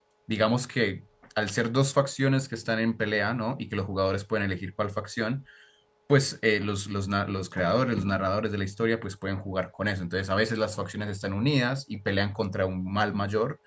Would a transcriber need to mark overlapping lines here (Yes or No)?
No